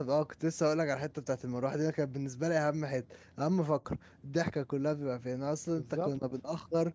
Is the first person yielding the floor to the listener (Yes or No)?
No